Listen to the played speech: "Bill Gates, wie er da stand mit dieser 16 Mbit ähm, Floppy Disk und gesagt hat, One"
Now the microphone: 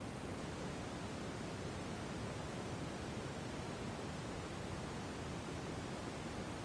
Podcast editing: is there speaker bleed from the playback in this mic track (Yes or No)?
No